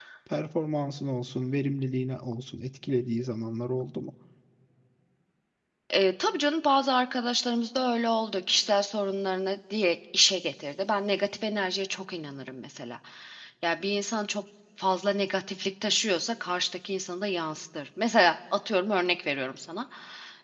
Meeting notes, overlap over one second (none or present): none